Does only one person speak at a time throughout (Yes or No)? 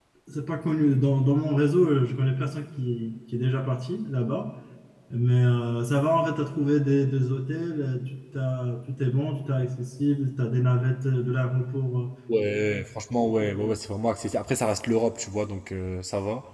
Yes